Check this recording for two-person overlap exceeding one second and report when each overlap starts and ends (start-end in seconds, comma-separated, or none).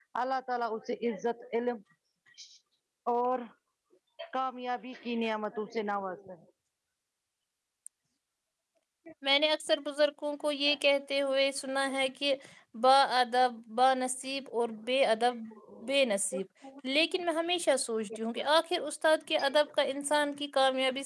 none